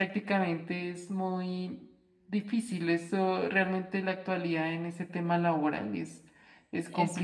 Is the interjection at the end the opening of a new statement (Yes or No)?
Yes